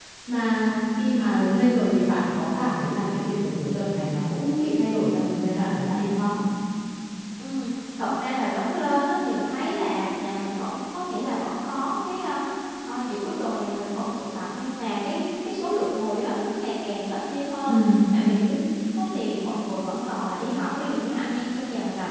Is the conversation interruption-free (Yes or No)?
Yes